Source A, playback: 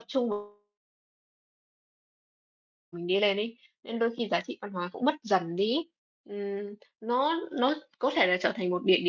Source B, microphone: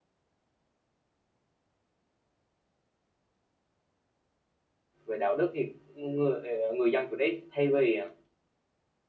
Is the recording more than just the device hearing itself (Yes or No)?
Yes